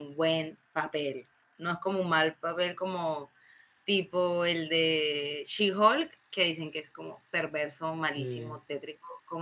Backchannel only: Yes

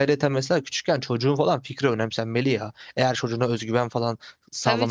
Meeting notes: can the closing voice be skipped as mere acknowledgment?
No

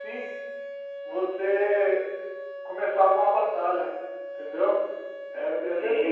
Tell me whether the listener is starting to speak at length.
Yes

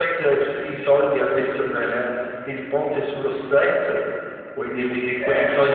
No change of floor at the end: Yes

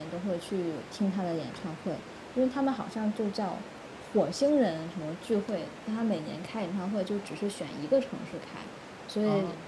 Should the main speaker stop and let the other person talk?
No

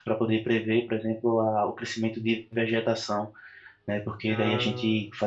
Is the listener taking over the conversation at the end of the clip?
No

